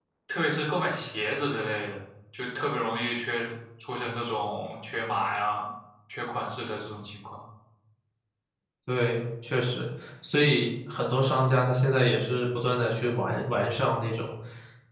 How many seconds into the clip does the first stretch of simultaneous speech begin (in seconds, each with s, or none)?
none